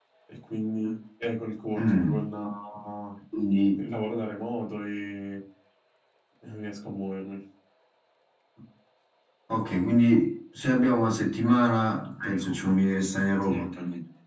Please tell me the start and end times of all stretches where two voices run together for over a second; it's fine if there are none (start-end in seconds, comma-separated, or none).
none